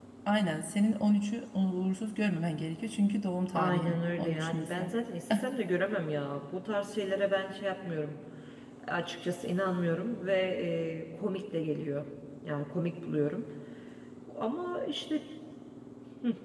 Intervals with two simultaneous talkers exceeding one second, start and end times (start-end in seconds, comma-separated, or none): 3.5-4.9